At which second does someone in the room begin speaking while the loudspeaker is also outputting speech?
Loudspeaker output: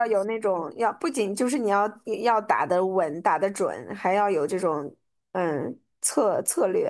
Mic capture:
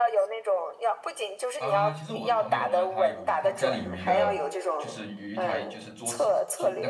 1.6 s

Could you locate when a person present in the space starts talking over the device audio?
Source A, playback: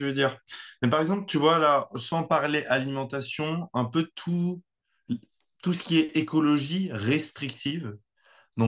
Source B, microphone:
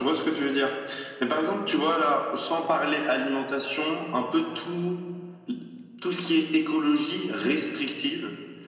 none

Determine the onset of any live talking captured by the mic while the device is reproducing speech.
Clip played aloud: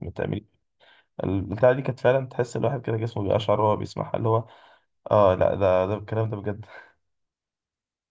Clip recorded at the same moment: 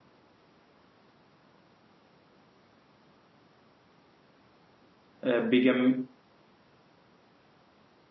5.2 s

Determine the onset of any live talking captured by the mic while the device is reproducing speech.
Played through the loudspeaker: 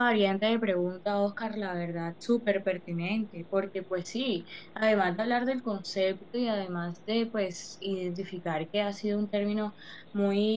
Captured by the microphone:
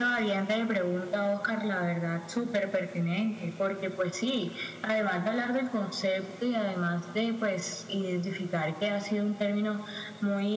none

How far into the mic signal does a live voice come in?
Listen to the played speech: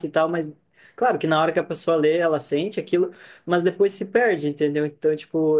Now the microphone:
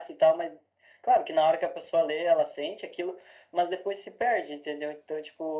none

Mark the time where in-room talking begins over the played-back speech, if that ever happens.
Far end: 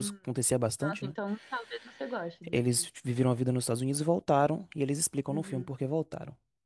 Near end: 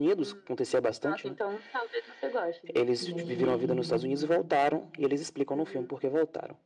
2.9 s

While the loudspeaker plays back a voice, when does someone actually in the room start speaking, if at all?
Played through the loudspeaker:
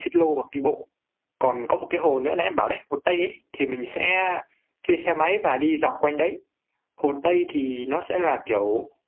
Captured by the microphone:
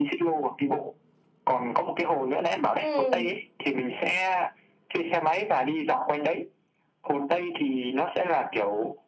2.8 s

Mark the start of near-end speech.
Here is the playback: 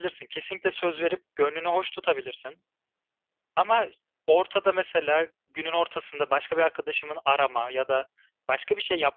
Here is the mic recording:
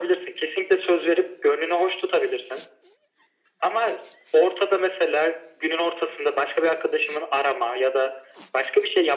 none

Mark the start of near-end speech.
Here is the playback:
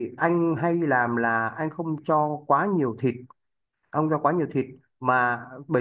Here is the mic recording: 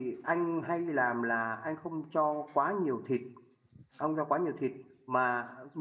none

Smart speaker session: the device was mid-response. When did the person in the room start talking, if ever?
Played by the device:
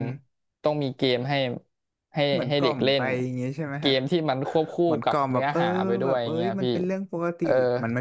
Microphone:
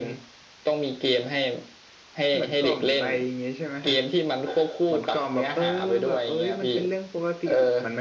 none

